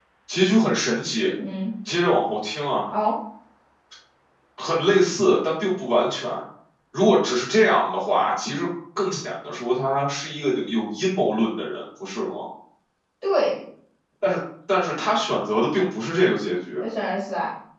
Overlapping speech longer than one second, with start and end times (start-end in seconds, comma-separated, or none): none